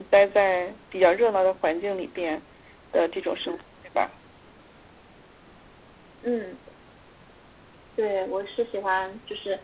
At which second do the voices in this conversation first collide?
none

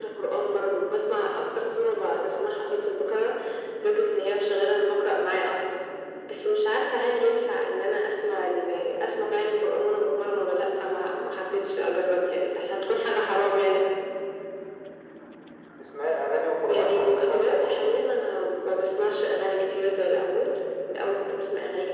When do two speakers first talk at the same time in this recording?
17 s

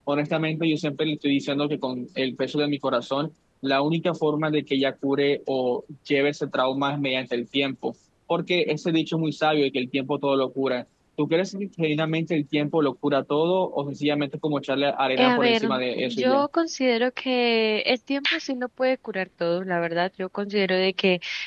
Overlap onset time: 15 s

